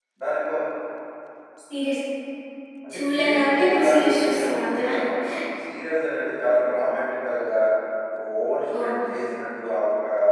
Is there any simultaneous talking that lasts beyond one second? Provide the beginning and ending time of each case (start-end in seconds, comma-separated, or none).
2.9-4.9